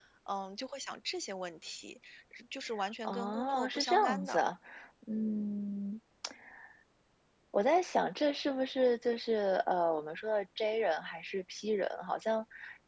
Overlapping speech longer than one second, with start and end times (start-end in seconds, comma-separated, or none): 3.0-4.4